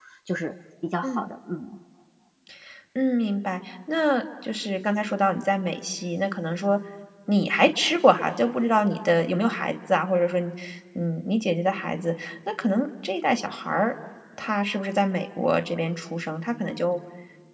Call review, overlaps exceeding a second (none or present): none